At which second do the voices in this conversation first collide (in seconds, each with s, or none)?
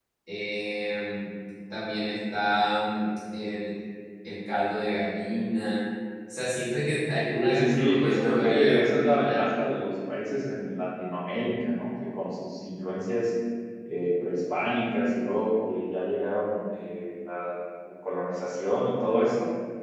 7.3 s